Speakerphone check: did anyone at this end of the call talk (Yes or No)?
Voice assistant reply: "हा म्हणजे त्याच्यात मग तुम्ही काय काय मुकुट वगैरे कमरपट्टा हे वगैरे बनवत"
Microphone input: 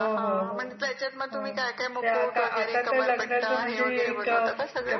Yes